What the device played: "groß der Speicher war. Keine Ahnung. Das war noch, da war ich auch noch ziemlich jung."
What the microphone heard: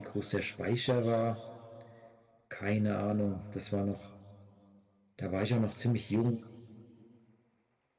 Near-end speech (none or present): none